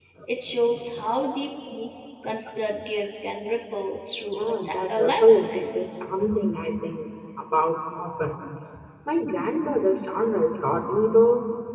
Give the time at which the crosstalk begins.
4.3 s

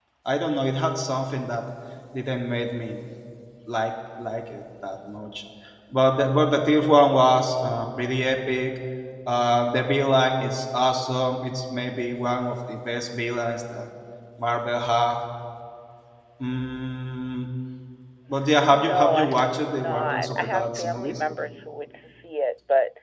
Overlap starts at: 18.7 s

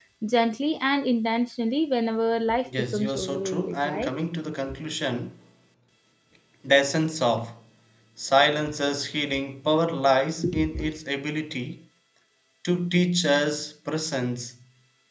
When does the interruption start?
2.8 s

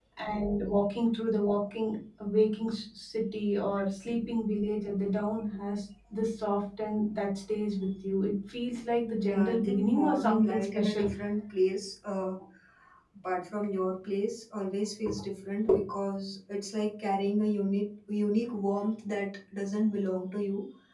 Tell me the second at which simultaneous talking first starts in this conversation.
9.1 s

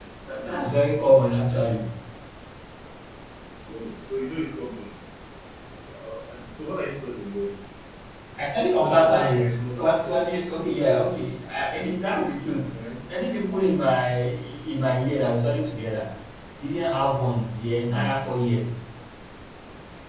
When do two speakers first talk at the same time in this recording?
8.8 s

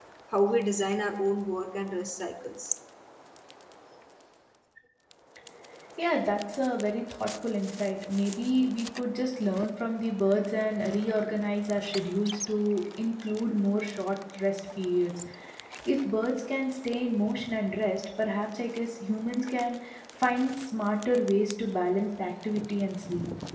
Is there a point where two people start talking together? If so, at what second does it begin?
none

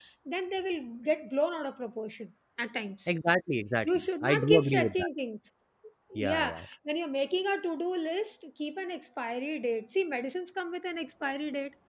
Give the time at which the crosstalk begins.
3.8 s

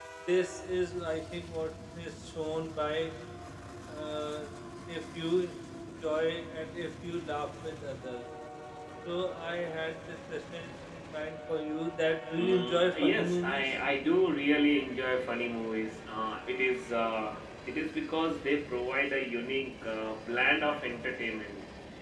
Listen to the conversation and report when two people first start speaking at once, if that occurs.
12.4 s

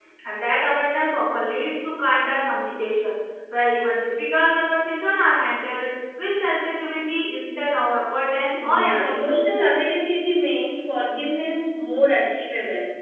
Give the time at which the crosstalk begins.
8.5 s

